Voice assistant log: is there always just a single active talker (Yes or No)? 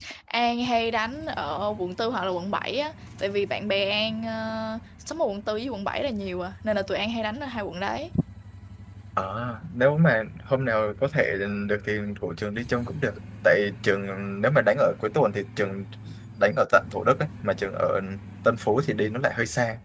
Yes